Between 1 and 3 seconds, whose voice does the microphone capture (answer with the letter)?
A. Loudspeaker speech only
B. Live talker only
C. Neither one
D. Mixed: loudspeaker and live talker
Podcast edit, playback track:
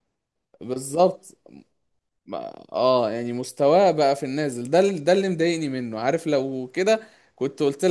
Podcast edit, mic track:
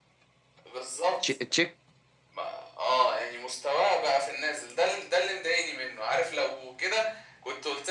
D